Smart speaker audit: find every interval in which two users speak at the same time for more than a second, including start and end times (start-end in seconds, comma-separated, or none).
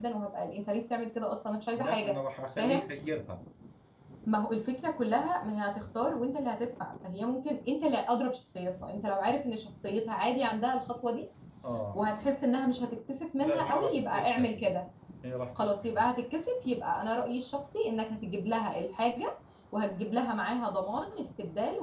13.4-14.6